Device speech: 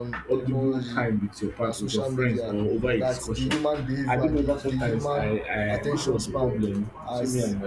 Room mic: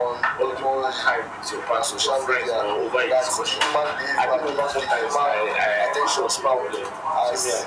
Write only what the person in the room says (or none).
none